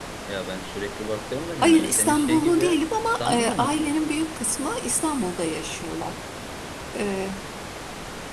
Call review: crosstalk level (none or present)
present